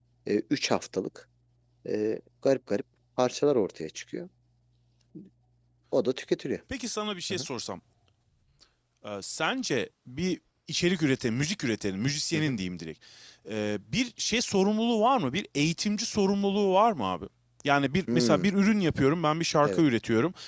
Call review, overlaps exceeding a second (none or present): none